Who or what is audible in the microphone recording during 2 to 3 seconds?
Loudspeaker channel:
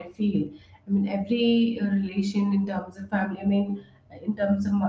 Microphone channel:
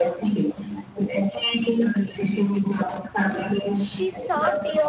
echo only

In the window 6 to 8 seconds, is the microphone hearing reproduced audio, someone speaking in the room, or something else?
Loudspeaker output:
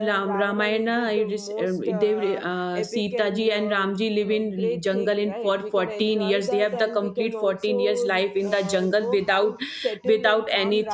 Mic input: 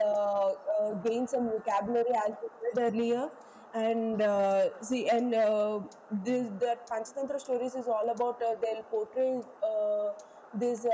user only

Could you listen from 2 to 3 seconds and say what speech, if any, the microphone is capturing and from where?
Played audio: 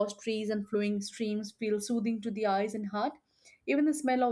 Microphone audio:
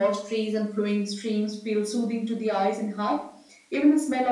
echo only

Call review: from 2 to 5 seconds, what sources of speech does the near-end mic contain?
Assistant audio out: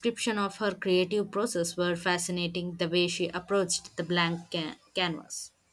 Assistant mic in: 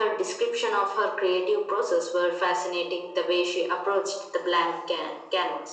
echo only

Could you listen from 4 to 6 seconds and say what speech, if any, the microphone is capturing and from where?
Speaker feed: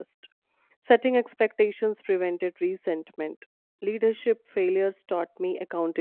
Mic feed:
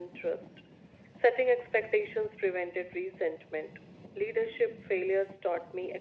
echo only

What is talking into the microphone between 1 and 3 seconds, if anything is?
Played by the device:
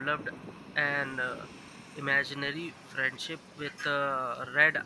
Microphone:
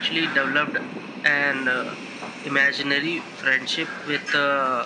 echo only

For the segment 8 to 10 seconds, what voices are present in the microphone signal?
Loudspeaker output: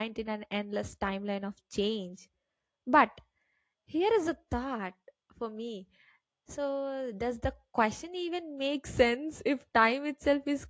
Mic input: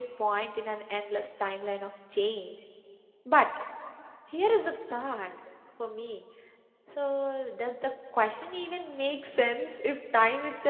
echo only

